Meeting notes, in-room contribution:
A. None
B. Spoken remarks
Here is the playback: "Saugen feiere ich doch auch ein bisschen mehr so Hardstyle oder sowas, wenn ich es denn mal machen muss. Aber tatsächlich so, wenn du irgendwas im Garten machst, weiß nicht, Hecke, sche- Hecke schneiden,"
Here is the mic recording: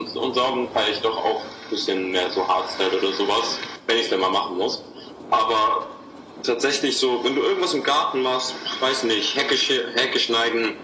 A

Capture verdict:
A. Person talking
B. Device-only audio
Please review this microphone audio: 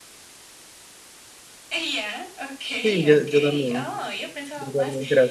A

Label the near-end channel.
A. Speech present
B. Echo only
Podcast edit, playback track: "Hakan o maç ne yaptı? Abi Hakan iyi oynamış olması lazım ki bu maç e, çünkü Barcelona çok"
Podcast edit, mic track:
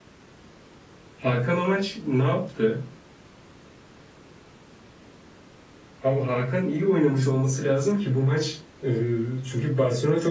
B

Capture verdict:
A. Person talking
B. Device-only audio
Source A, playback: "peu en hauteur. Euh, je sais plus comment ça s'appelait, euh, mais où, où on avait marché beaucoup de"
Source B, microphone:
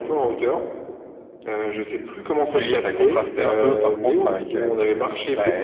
A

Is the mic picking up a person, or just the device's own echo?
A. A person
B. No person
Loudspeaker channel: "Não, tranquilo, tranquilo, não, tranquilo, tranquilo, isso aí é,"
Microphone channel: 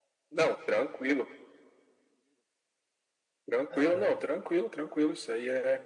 A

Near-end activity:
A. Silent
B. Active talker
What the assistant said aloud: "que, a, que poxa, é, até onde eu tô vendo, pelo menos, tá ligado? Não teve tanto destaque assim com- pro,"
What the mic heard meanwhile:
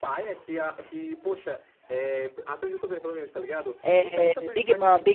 B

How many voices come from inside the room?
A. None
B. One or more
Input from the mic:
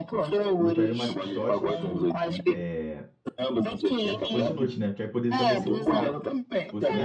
B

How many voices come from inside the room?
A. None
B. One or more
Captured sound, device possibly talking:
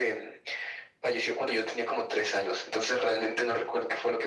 A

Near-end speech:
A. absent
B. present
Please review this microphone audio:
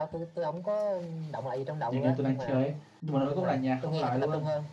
B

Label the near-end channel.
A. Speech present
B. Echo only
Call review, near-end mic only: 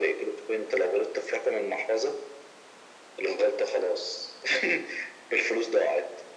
B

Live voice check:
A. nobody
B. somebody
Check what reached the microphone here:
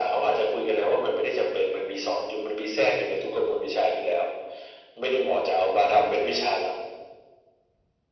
A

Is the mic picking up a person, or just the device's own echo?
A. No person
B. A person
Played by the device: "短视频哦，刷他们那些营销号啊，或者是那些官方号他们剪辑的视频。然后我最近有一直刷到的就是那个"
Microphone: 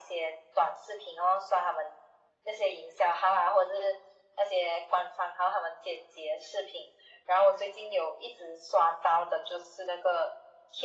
A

